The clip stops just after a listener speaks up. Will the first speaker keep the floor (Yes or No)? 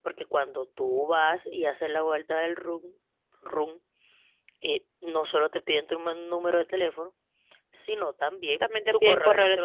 No